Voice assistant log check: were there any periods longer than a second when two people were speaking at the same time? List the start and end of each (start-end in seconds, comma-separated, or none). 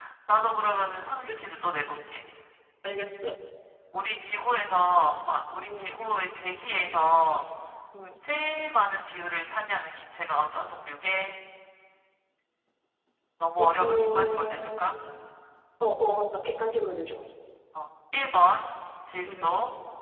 13.6-14.9